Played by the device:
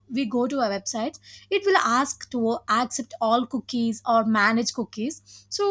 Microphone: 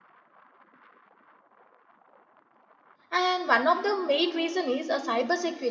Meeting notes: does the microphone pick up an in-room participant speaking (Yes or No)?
Yes